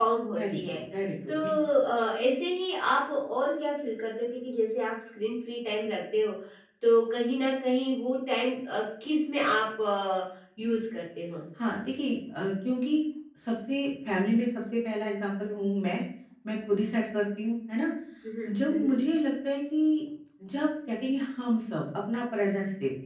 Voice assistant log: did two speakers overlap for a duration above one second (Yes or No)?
No